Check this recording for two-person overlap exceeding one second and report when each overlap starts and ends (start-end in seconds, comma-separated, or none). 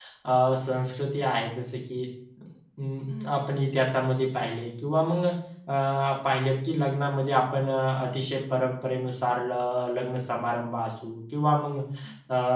none